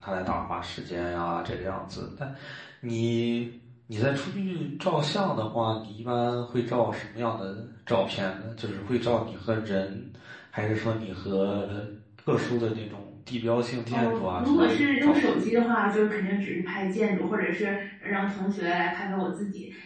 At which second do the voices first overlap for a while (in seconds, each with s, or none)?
13.9 s